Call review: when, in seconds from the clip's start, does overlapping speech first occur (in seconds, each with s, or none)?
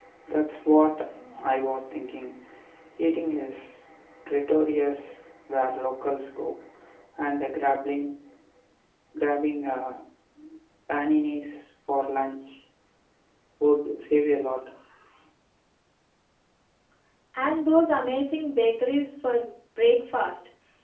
none